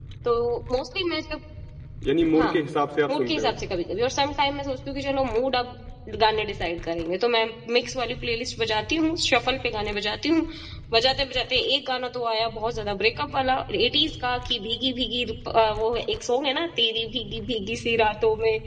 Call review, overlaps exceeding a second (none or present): none